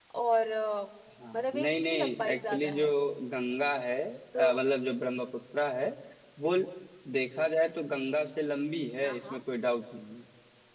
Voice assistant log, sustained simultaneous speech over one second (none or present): present